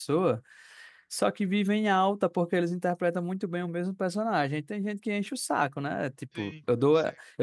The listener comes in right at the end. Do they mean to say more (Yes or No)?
No